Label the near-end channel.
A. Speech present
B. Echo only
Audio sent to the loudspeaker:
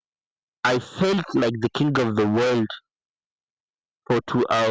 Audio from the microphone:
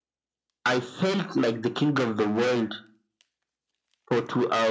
B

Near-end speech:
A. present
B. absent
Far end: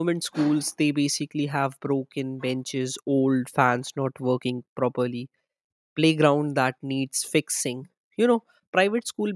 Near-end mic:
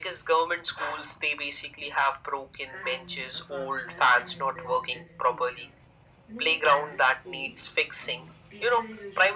A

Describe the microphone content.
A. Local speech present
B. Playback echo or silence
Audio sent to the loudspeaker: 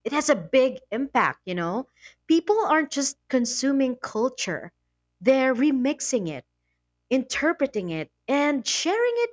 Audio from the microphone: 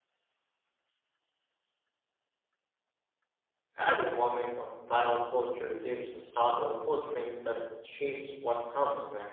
A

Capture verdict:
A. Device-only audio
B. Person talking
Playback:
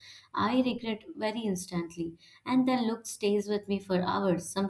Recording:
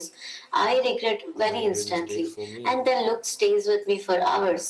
B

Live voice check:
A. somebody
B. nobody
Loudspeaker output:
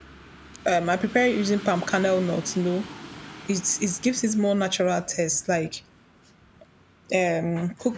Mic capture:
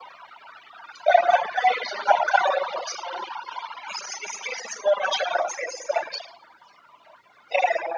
B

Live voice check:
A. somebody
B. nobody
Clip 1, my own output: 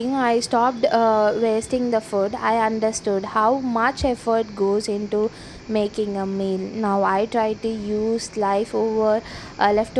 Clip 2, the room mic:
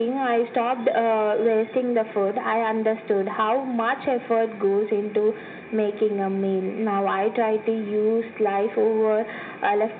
B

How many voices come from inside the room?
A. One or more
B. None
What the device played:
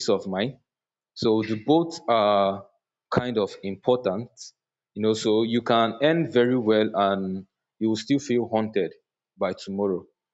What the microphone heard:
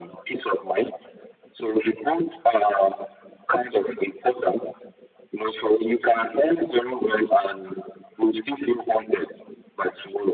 B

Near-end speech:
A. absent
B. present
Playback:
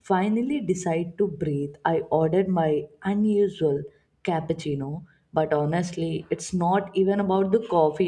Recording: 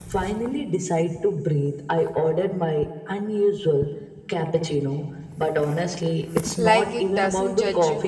B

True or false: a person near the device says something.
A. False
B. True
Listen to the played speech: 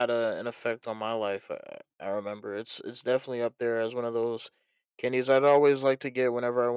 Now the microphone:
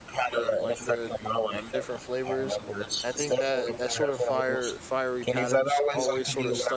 B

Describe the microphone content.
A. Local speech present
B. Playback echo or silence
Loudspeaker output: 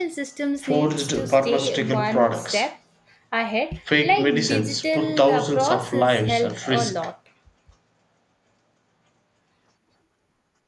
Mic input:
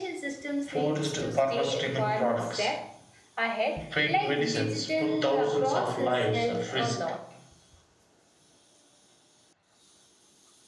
B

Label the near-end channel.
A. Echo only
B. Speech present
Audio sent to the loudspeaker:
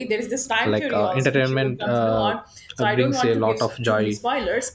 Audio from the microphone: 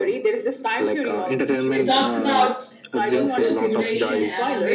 B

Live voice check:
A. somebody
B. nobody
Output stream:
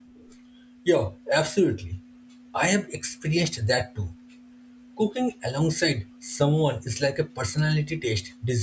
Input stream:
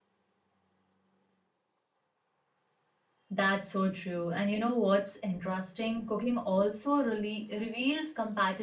A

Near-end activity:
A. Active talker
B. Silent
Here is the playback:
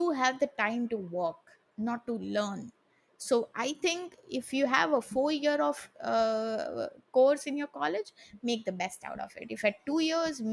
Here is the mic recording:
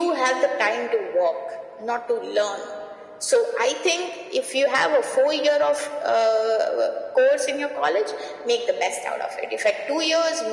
B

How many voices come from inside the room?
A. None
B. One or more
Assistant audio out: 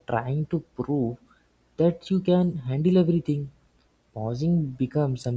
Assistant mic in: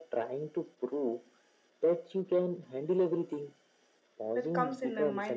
B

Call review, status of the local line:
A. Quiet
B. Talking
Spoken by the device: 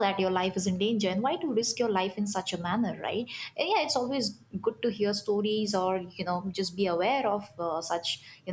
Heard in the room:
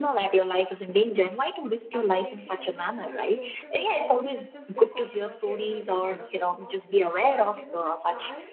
B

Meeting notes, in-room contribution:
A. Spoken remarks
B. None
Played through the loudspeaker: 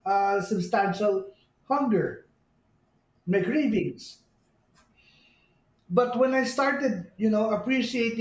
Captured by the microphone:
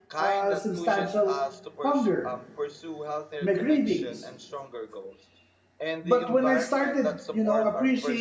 A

